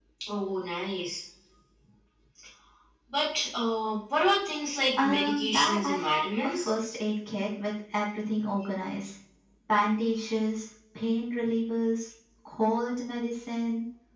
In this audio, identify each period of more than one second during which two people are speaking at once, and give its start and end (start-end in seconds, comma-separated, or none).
5.0-6.7